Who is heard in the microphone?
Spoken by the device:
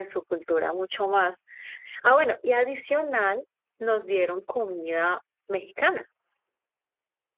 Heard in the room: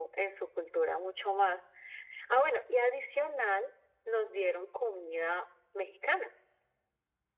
echo only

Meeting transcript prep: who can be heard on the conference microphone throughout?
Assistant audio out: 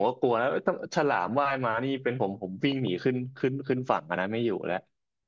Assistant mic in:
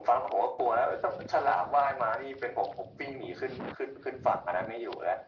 echo only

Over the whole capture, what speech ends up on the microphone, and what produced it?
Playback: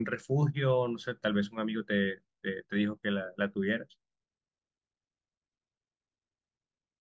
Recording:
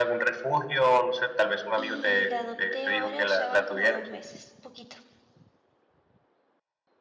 both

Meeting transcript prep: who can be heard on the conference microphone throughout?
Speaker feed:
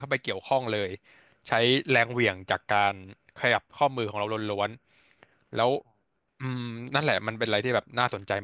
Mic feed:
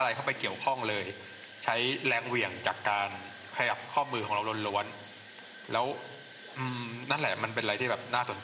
echo only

